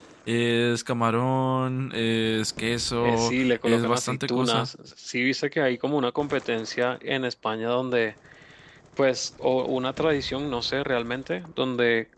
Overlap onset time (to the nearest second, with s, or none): 3 s